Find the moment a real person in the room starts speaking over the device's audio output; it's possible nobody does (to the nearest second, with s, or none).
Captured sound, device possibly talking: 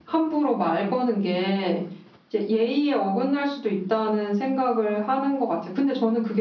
none